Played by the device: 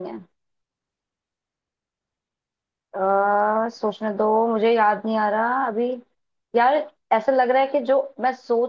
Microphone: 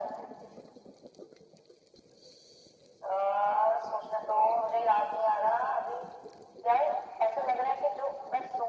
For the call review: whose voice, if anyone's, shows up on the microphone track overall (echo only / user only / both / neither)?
echo only